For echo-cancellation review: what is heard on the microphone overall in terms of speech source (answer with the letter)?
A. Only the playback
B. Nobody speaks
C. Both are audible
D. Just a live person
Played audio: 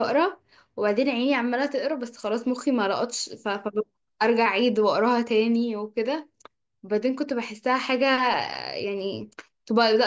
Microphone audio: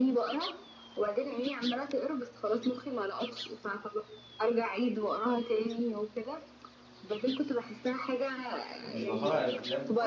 C